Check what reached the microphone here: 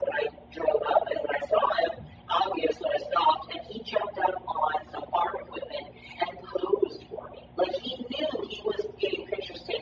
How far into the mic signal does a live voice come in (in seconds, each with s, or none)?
none